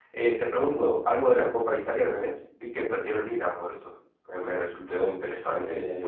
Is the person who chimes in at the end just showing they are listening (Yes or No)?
No